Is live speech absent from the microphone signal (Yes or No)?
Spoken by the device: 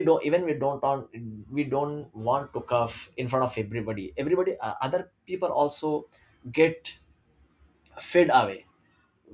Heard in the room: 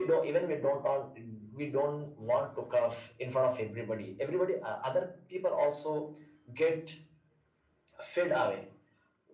Yes